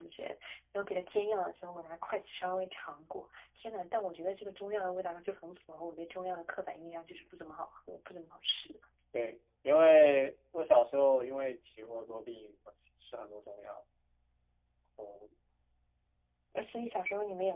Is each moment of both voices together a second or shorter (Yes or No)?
Yes